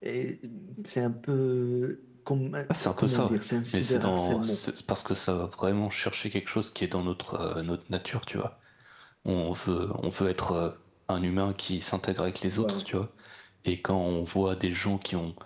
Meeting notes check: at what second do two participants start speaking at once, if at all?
3.0 s

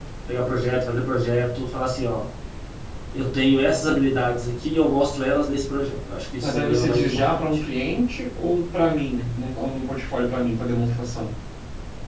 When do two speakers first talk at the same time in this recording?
6.4 s

